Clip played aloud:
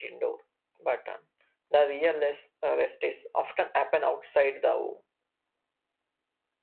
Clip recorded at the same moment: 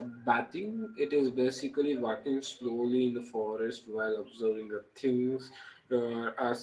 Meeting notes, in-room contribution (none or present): present